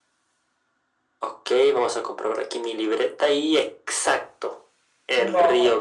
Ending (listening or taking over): listening